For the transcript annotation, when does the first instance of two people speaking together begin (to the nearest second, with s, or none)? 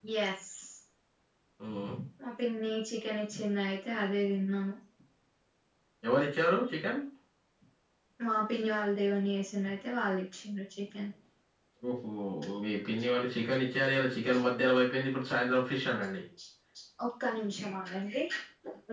none